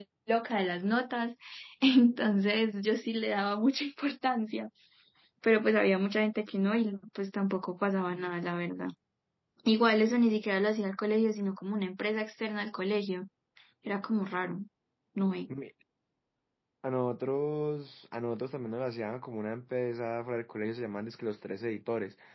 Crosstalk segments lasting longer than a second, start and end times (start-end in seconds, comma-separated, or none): none